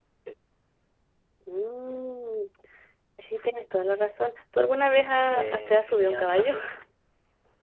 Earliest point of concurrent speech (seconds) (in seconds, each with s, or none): 5.3 s